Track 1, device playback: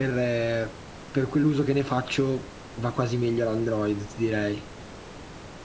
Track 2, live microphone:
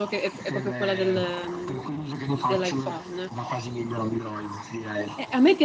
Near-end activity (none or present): present